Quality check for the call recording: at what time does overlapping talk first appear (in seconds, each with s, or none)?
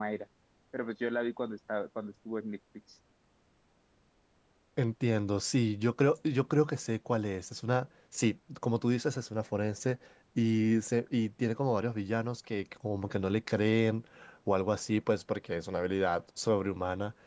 none